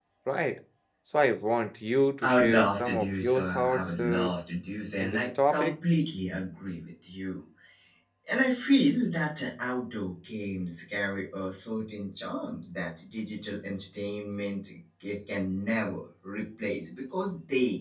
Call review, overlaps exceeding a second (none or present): present